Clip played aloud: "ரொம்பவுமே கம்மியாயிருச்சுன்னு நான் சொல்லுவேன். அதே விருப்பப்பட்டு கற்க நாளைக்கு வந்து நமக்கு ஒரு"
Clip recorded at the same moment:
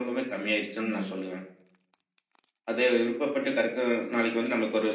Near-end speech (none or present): present